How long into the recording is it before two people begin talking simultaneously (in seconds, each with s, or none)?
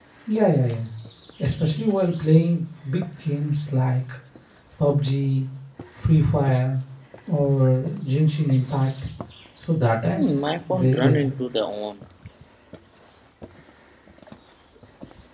10.1 s